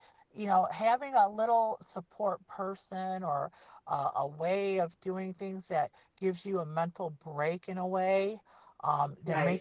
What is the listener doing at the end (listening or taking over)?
listening